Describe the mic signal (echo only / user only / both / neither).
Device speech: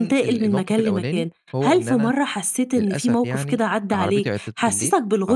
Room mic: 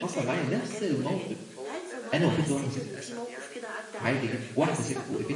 both